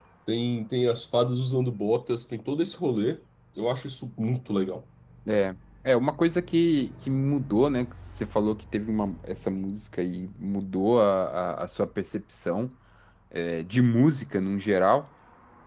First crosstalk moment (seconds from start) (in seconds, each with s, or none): none